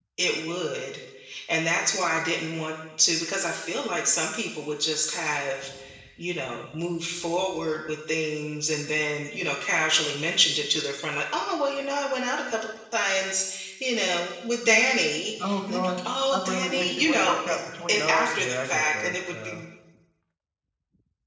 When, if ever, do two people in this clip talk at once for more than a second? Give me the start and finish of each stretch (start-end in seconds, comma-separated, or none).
15.4-17.5, 17.9-19.6